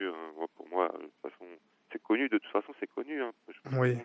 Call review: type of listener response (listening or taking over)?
listening